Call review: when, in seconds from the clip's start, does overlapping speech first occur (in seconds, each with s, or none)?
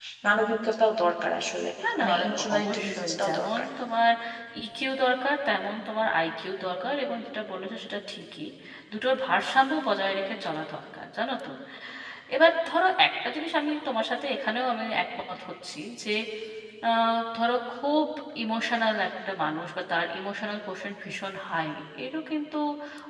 1.8 s